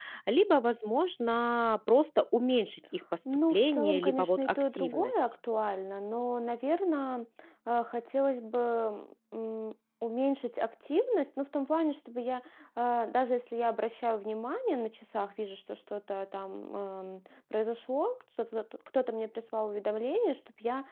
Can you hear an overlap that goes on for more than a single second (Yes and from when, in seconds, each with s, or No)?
Yes, from 3.5 s